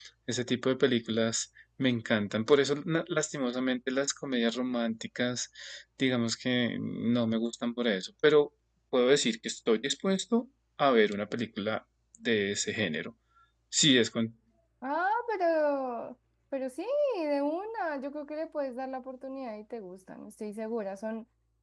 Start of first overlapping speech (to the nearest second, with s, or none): none